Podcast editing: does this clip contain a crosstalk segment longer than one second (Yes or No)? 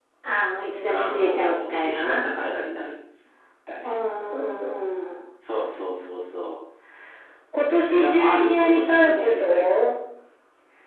Yes